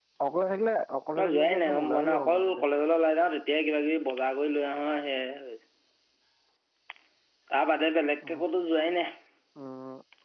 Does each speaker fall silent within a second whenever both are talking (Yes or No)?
No